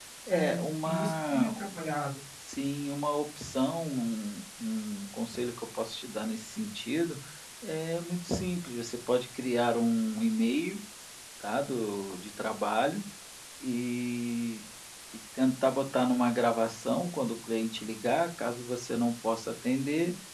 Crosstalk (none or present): present